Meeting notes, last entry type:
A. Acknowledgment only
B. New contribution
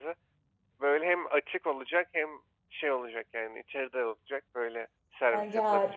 B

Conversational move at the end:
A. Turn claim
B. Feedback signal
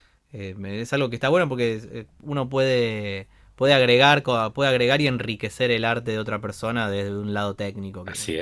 A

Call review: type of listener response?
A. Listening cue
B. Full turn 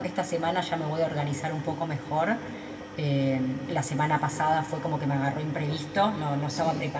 A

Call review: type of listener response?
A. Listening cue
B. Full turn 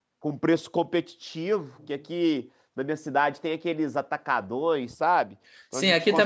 B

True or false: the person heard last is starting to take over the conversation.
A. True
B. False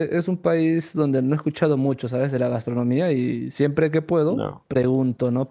B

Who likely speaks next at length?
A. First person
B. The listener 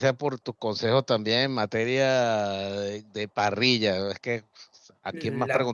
A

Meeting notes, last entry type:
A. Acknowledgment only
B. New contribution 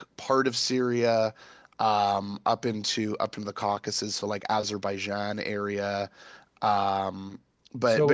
B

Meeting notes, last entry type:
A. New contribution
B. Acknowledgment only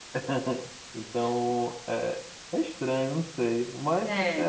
B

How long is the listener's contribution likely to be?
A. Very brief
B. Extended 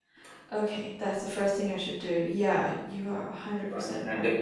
B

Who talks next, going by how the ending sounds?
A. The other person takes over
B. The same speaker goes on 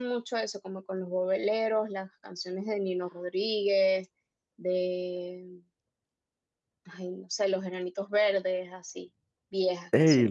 A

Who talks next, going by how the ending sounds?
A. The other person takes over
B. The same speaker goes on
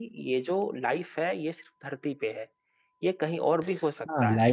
A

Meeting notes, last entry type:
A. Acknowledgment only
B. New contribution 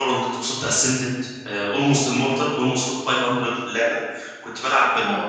A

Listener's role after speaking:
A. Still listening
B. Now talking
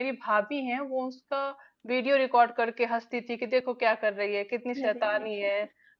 A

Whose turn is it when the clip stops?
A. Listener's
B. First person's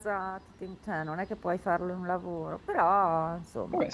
A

